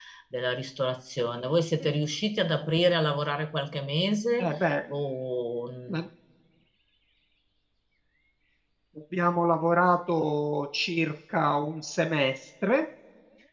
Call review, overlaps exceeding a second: none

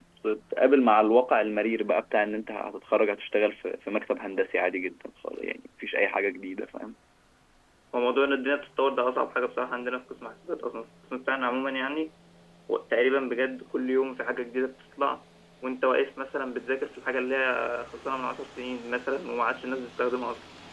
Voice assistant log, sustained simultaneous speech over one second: none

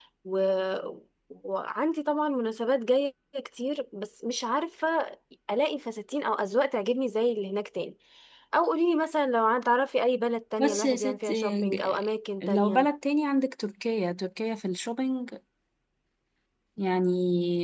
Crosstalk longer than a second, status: present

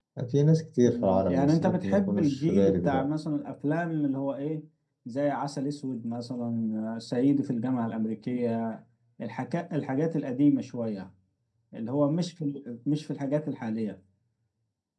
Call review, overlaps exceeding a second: present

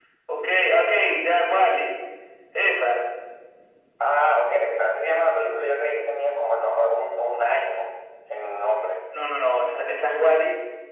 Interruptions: none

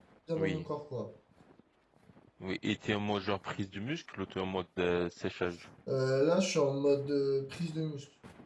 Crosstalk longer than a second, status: none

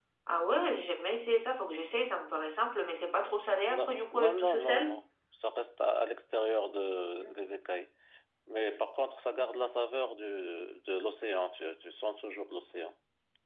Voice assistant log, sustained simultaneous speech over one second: present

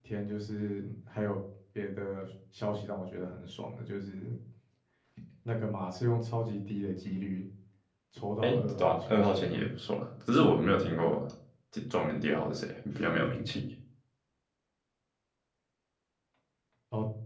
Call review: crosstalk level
present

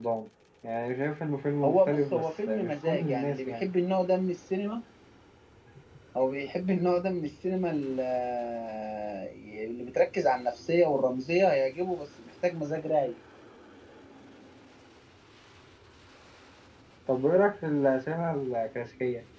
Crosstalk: present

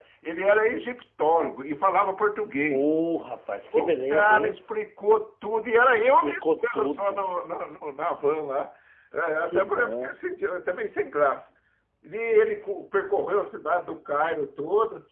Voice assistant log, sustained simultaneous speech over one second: present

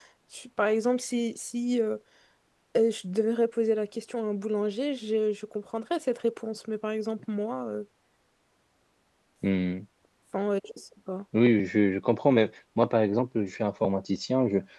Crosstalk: none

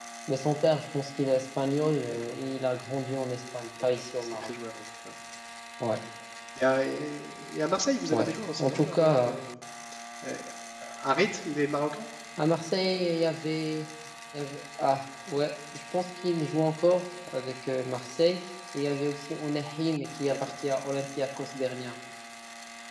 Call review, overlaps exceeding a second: present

